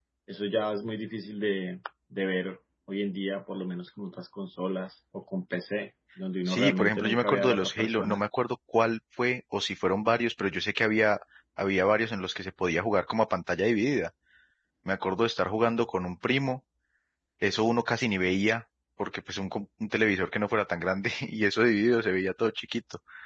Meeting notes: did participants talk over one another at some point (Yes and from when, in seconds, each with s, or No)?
Yes, from 6.5 s